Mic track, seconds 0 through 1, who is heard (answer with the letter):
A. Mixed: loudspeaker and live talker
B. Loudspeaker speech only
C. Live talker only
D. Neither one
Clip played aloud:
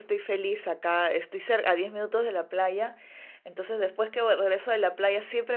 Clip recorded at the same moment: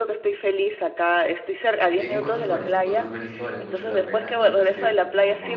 B